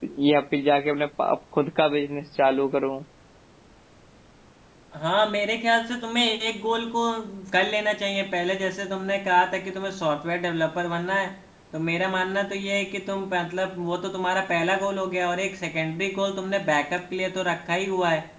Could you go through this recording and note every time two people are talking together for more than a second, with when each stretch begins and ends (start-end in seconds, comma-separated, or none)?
none